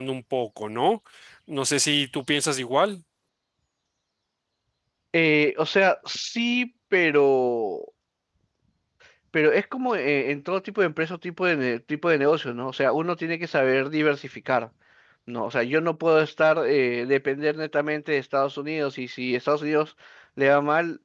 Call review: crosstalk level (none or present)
none